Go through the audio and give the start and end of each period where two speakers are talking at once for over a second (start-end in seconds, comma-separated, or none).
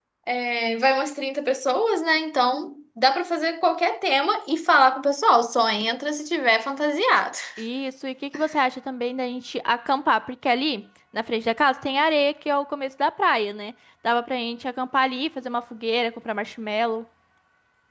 none